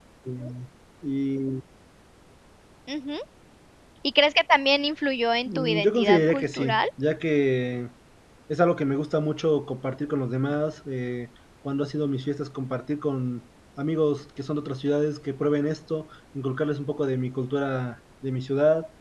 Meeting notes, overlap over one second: present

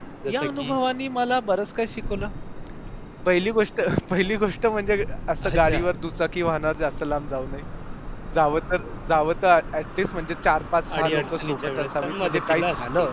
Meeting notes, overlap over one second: present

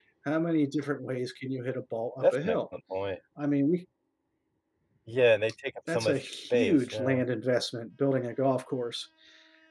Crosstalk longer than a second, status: present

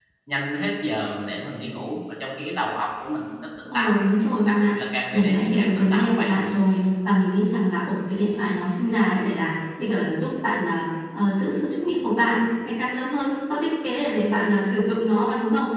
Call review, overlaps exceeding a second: present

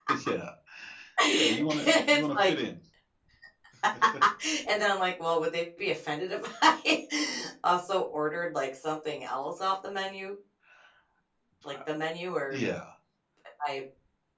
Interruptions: present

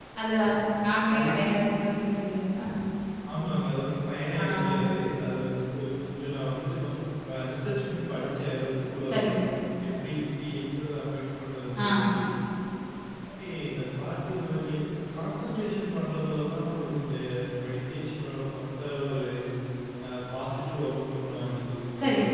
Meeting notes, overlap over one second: none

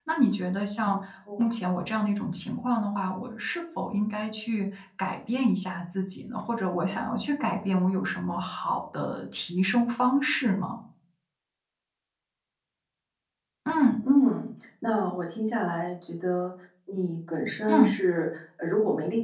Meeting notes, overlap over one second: none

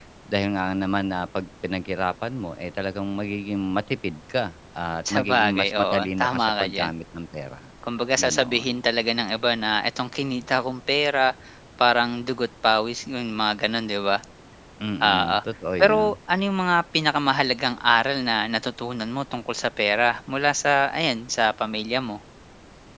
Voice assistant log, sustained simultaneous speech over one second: present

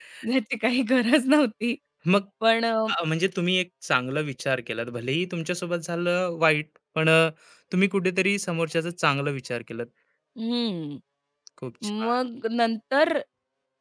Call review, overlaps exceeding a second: none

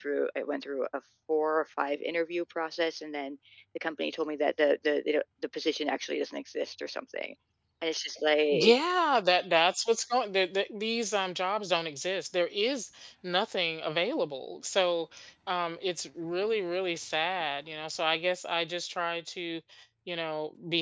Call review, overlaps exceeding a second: none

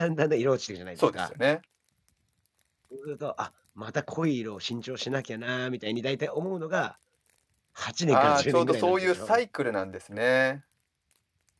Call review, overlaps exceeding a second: present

